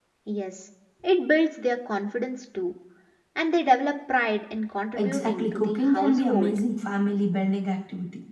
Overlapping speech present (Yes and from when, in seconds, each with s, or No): Yes, from 5.0 s